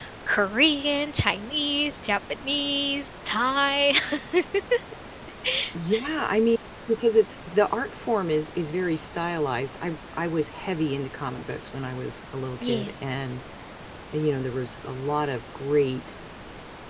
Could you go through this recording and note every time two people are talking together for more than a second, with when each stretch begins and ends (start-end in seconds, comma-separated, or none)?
none